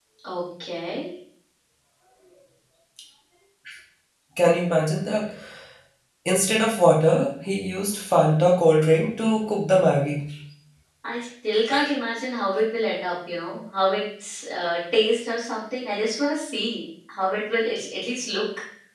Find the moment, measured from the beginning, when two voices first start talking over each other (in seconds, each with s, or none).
none